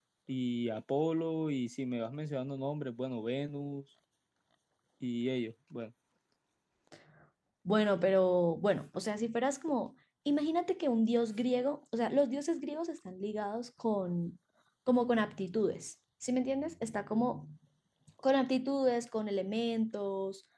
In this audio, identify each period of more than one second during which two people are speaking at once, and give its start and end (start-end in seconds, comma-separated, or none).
none